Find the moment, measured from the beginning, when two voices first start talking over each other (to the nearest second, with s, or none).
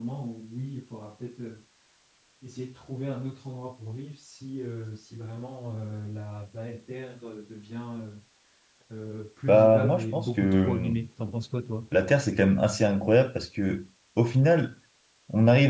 9 s